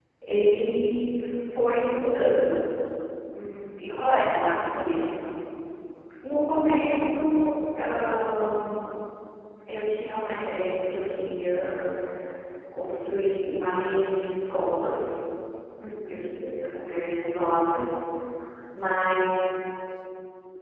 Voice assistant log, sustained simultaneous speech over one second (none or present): none